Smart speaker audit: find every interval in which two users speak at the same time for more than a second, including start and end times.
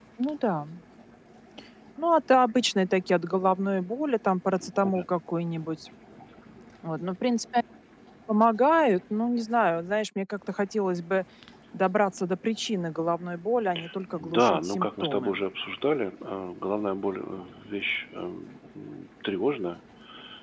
14.1-15.4

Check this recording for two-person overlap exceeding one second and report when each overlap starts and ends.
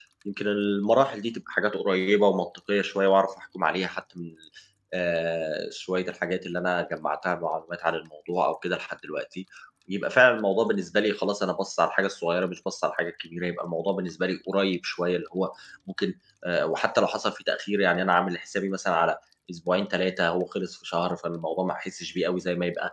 none

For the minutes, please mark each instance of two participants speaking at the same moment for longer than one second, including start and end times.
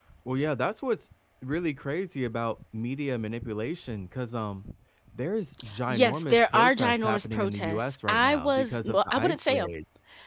5.9-9.7

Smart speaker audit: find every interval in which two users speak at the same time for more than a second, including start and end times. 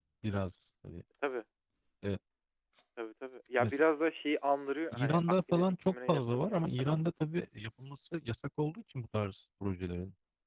4.9-7.0

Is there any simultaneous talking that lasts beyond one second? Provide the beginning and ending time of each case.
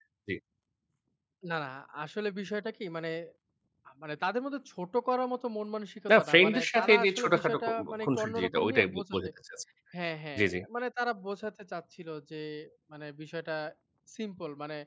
6.1-9.2

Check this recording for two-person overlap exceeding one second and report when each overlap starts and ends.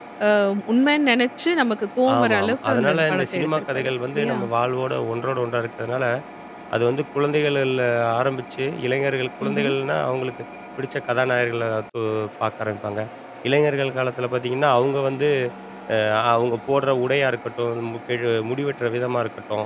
2.2-4.4

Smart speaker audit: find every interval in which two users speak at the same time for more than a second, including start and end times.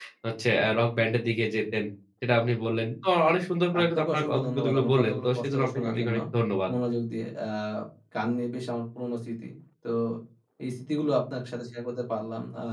3.8-6.2

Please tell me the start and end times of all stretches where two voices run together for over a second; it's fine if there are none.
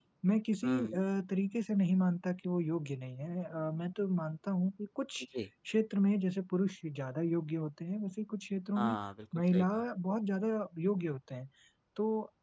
none

